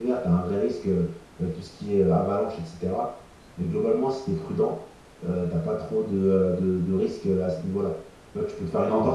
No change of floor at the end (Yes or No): Yes